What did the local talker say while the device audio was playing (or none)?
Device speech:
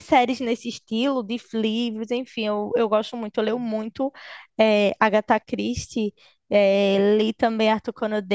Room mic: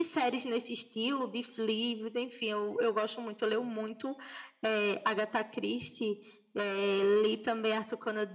none